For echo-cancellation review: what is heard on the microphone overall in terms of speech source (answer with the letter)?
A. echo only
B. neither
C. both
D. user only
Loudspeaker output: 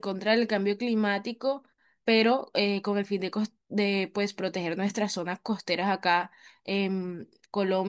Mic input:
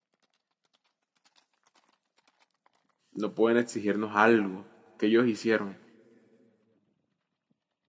D